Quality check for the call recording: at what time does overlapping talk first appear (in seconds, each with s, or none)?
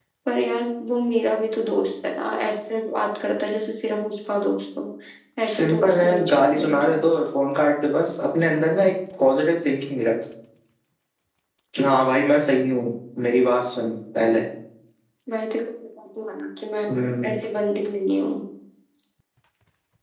5.5 s